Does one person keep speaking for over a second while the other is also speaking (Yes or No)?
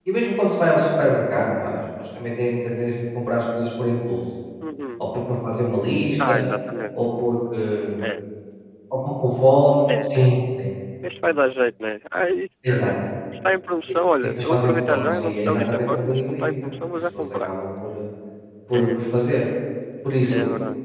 Yes